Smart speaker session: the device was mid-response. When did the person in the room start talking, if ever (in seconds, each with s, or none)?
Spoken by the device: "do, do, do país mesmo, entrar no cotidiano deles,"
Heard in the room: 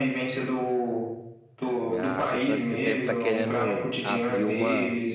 1.9 s